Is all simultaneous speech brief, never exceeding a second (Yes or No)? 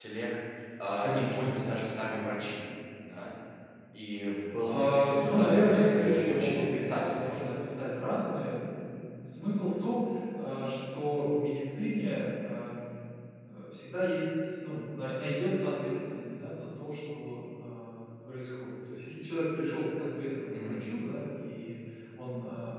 No